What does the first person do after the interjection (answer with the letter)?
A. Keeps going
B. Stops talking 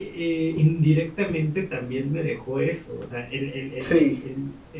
A